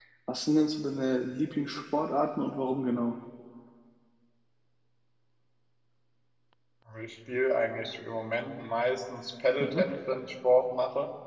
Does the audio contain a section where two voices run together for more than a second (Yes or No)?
No